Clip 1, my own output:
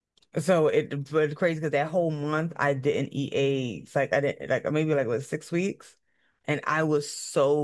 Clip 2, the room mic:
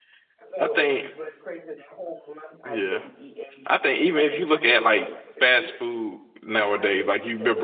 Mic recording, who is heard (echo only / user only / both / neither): both